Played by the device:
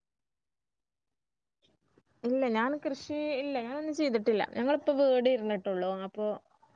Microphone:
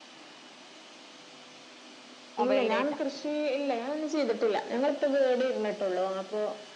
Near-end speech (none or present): present